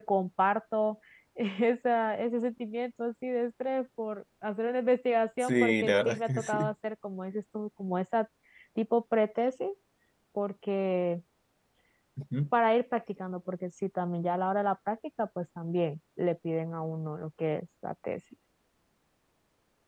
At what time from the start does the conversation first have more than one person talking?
5.4 s

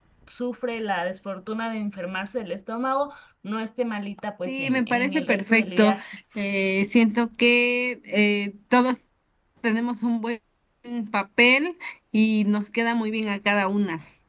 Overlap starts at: 4.5 s

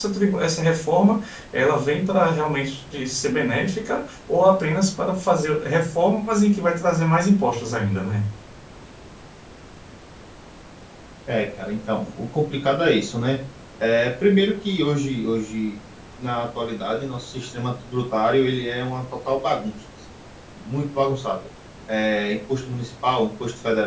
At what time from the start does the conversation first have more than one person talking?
none

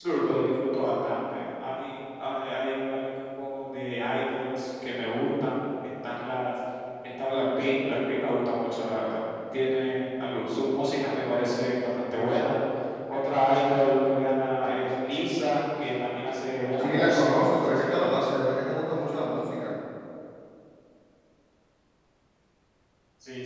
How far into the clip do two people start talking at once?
16.8 s

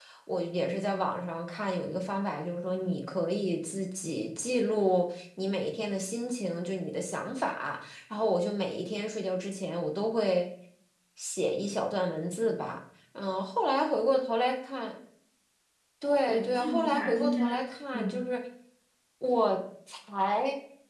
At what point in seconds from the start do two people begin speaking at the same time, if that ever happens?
16.3 s

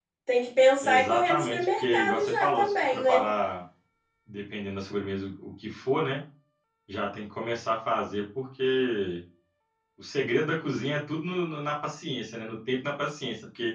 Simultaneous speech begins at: 0.8 s

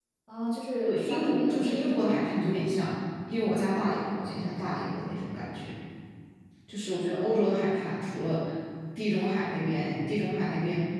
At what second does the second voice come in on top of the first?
0.8 s

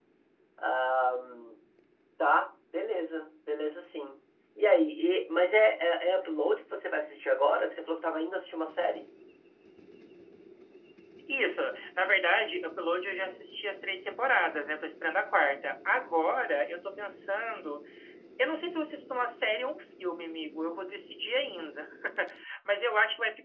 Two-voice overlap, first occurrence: none

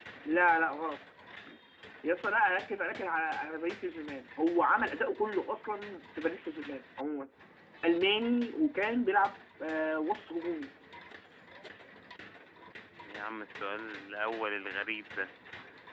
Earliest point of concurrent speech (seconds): none

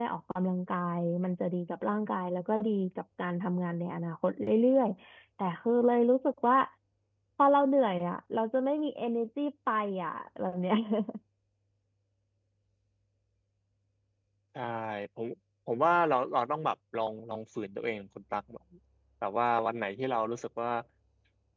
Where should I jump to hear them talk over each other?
none

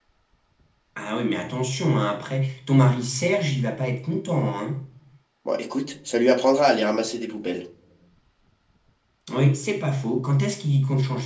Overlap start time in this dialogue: none

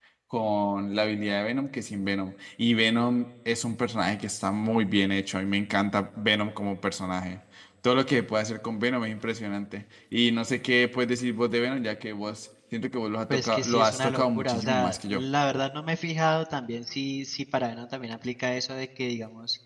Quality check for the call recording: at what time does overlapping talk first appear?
13.3 s

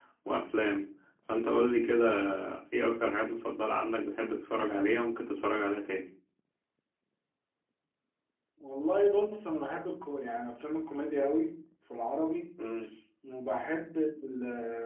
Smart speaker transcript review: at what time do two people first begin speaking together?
none

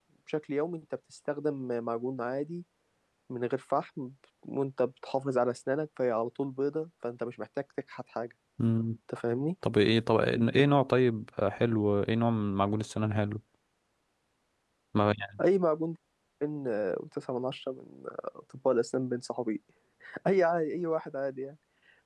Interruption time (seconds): none

